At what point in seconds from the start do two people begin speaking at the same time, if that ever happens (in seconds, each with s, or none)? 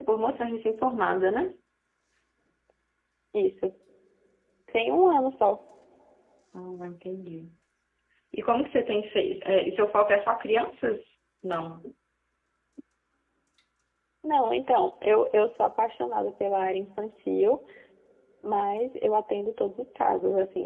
none